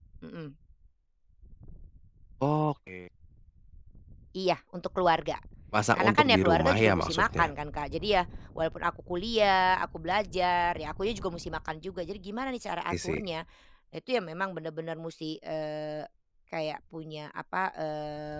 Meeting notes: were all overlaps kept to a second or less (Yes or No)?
No